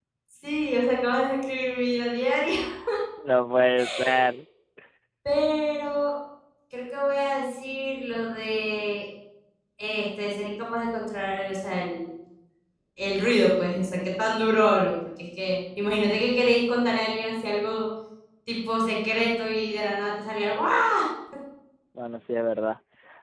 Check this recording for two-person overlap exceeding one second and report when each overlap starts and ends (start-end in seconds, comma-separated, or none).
none